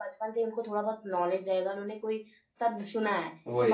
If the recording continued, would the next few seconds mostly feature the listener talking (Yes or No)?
No